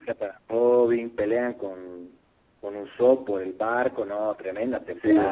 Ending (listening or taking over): taking over